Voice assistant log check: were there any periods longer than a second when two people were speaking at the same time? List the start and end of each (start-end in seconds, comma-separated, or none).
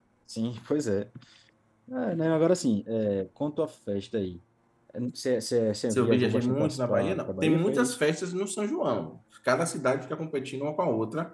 5.9-8.0